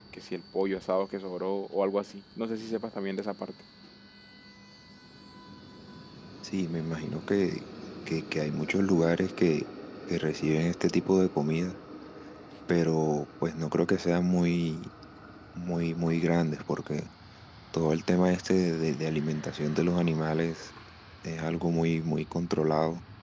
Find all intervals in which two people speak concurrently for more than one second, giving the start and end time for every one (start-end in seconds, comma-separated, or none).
none